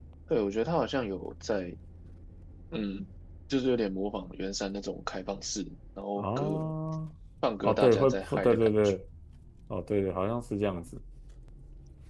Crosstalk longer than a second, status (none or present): present